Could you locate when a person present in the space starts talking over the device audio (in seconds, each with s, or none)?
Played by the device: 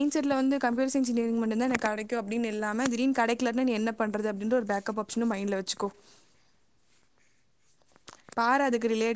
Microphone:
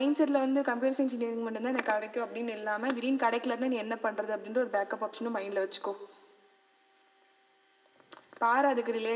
none